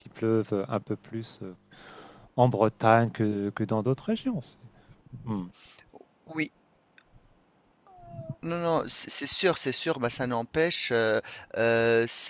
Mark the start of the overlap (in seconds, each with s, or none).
none